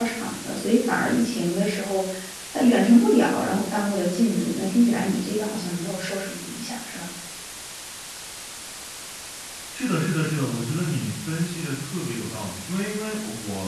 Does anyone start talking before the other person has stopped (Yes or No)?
No